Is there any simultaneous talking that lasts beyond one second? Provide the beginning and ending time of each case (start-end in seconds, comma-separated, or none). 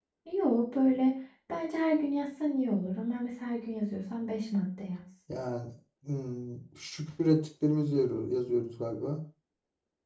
none